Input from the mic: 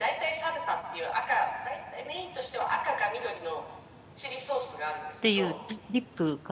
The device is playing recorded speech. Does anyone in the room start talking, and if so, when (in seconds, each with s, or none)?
5.2 s